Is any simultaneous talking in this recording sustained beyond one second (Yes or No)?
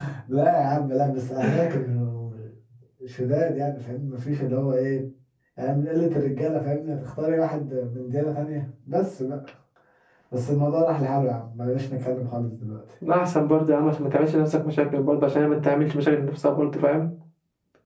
No